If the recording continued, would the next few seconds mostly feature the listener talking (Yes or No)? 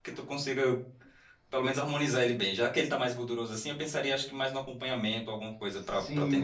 Yes